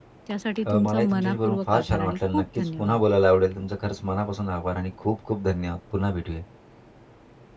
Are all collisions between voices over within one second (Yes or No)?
No